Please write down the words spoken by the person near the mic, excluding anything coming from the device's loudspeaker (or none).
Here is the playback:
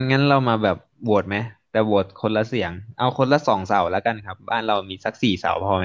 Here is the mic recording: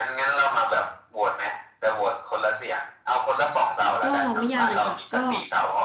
ก็ไม่ยากเลยค่ะก็